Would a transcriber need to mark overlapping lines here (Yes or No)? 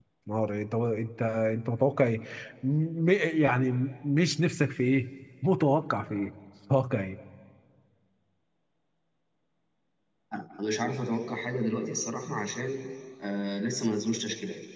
No